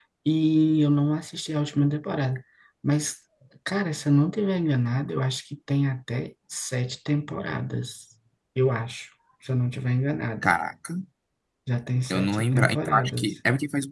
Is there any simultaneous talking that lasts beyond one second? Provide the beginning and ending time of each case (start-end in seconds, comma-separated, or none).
12.1-13.3